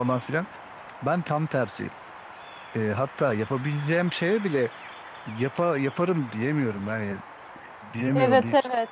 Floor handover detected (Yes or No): Yes